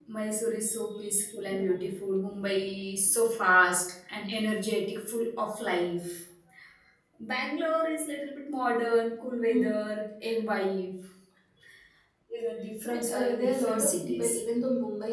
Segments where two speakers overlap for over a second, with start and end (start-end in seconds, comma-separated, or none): 12.9-14.4